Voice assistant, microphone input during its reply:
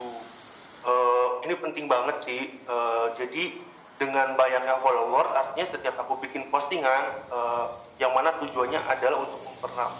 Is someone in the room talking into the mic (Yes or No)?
No